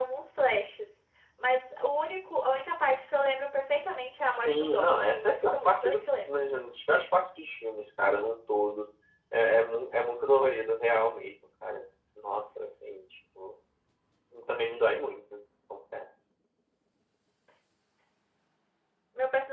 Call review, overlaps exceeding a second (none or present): present